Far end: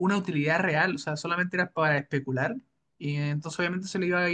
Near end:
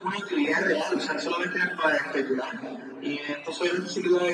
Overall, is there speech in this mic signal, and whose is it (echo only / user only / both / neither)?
echo only